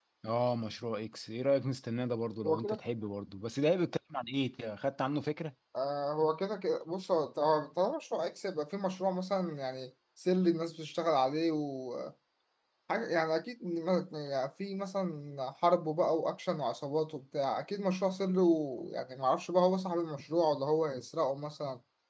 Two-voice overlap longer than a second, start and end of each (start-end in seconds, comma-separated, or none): none